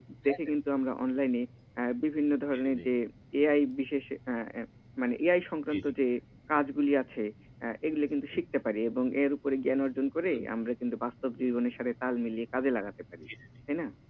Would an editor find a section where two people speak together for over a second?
No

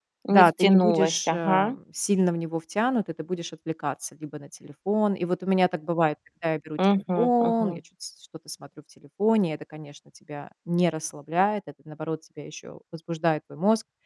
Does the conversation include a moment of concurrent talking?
Yes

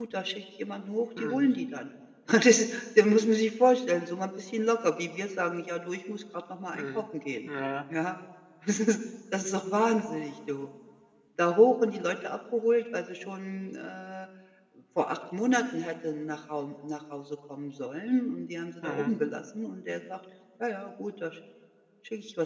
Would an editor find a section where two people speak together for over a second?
No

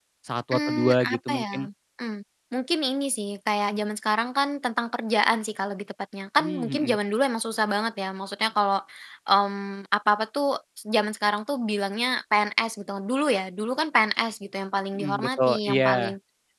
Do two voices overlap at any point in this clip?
Yes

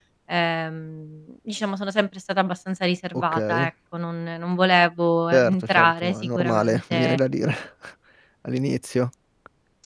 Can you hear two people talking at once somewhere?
Yes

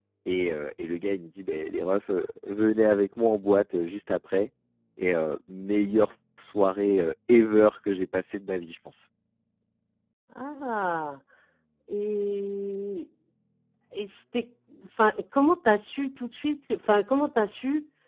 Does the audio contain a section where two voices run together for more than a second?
No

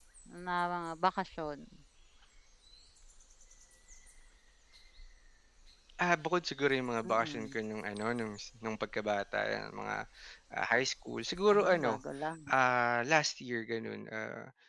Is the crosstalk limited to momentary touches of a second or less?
Yes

